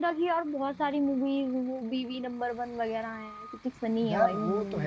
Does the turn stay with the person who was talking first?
No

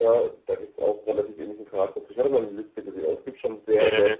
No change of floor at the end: No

